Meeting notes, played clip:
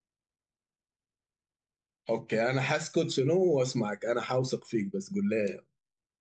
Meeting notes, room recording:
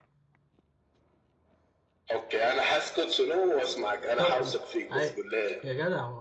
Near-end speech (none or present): present